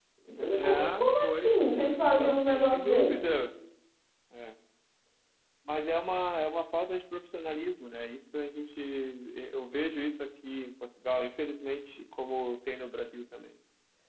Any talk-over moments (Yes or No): Yes